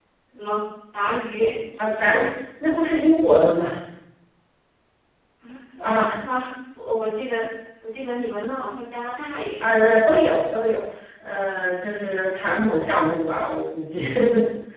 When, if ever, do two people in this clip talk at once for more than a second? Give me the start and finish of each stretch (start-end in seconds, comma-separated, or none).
none